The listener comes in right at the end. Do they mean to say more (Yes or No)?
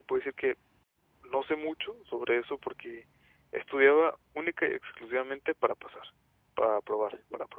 No